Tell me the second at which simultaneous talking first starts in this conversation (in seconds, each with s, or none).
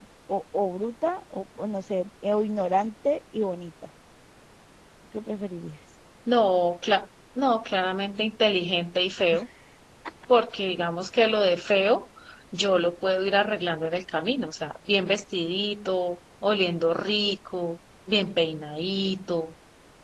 none